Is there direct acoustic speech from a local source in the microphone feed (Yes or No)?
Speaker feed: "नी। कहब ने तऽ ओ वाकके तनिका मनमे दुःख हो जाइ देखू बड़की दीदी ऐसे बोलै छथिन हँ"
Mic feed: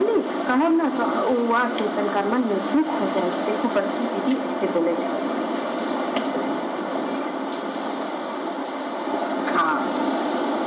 No